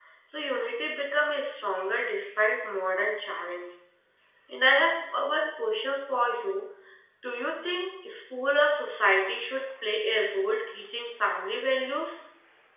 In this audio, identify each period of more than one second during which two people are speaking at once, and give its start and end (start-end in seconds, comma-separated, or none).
none